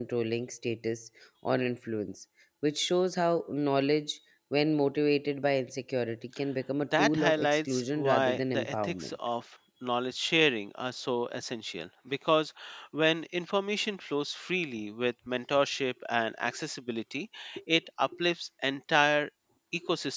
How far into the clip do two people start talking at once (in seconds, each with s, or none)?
6.8 s